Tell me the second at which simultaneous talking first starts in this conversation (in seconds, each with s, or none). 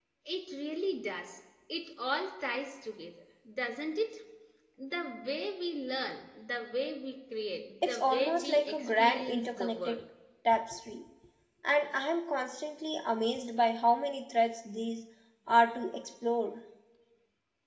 7.8 s